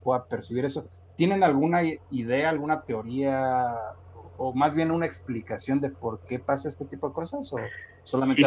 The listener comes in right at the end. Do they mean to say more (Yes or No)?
Yes